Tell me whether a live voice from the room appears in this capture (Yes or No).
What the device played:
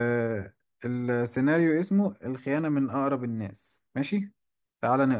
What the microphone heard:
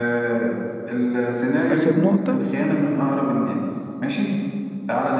Yes